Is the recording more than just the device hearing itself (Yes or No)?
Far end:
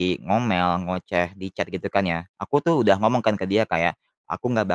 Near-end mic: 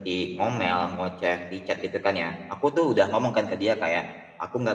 No